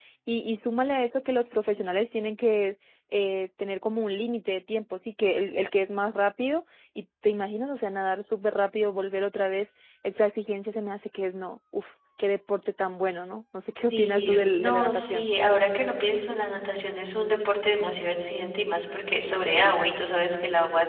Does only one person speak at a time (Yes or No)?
No